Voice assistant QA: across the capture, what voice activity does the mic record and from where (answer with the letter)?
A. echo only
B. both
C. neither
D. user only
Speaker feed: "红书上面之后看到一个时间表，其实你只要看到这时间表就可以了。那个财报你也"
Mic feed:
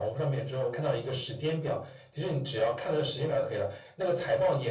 A